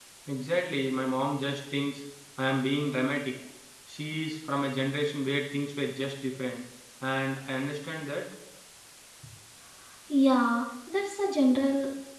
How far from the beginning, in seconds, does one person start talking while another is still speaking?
none

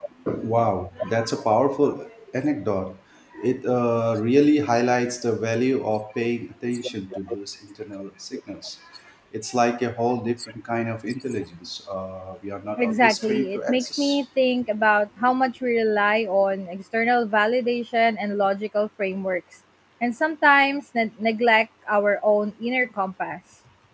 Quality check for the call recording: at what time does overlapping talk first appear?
12.8 s

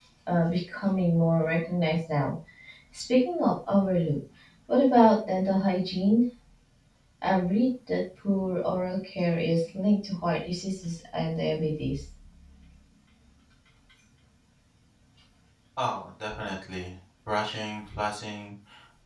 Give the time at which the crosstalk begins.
none

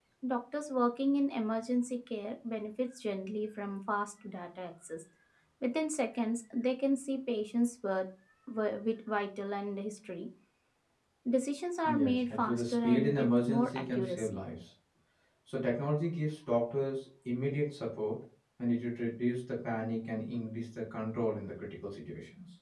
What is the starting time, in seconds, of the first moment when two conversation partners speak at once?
11.8 s

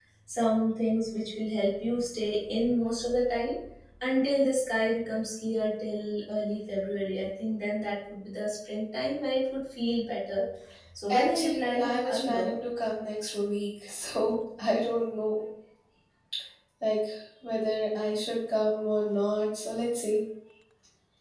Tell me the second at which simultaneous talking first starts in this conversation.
11.1 s

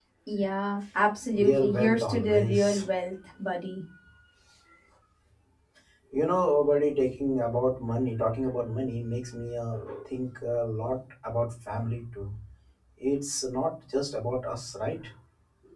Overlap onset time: 1.3 s

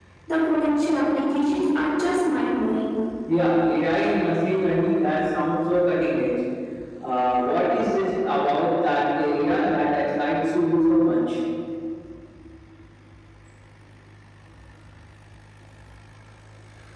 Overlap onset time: none

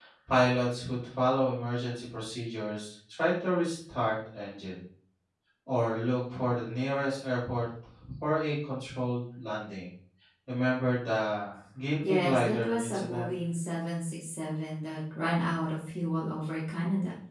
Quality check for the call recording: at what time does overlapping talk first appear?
12.0 s

